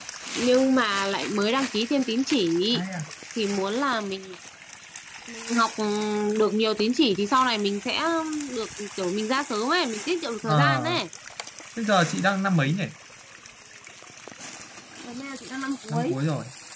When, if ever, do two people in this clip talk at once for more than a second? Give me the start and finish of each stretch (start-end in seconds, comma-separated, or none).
none